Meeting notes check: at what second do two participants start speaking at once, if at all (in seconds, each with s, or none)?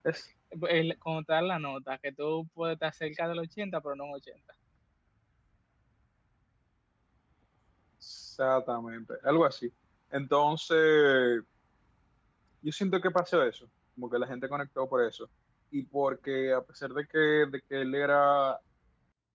none